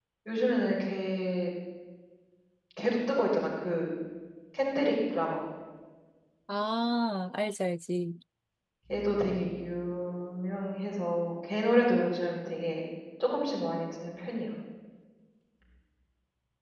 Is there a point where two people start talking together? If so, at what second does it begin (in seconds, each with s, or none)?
none